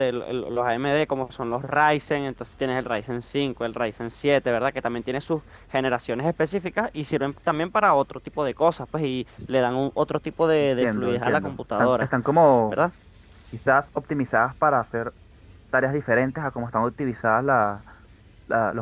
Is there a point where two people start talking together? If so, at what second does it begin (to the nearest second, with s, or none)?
11 s